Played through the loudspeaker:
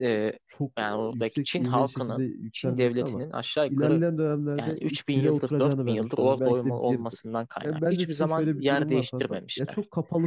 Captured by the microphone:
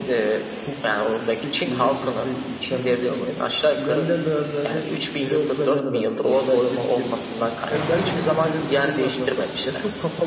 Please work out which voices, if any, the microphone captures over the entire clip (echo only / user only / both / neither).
echo only